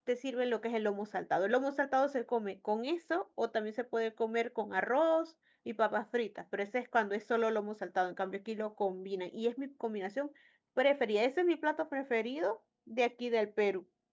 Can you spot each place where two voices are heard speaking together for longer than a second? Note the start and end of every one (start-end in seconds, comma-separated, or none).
none